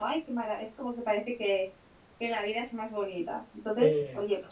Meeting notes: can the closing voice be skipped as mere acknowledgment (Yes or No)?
Yes